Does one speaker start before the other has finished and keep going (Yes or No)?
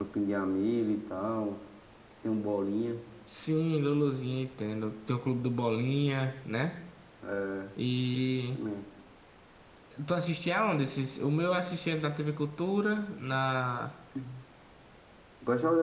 No